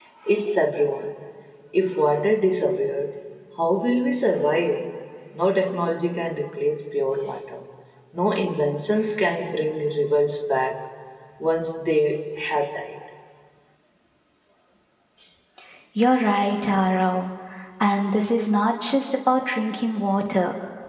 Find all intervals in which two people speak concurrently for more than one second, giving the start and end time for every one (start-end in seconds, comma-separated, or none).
none